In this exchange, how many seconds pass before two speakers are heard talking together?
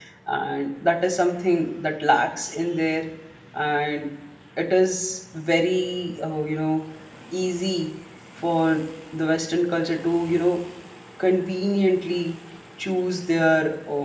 none

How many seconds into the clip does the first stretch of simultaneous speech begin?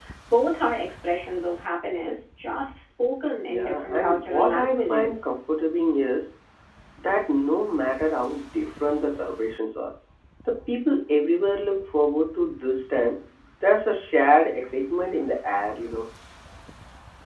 3.4 s

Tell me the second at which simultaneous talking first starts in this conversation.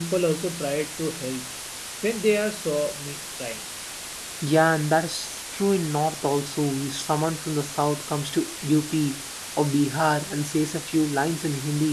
none

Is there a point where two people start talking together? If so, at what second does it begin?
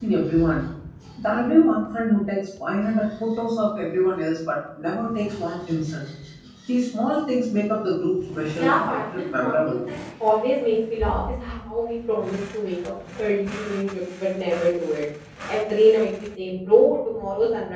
8.5 s

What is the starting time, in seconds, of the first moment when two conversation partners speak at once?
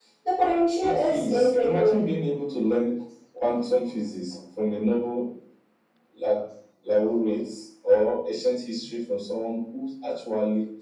0.8 s

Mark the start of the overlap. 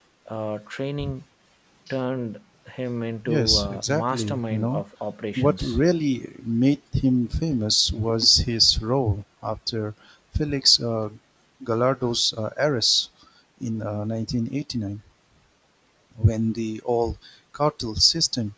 3.3 s

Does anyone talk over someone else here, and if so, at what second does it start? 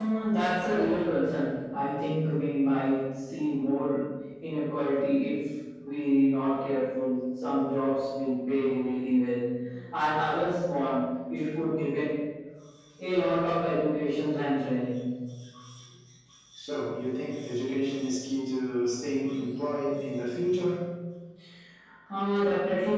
none

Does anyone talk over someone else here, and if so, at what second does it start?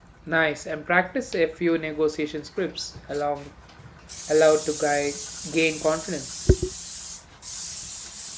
none

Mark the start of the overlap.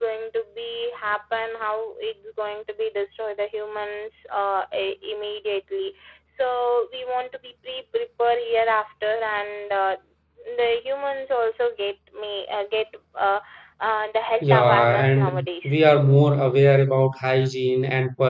14.4 s

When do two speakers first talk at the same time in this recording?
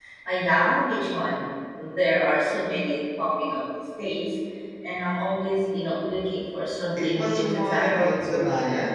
7.0 s

